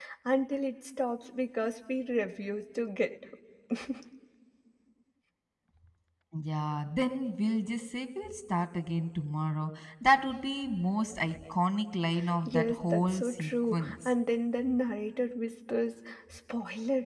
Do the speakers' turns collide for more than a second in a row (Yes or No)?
Yes